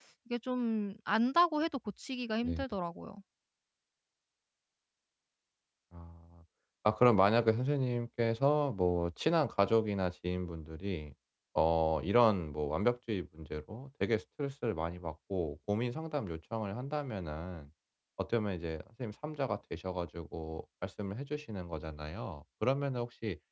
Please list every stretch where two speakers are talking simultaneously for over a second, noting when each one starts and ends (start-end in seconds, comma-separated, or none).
none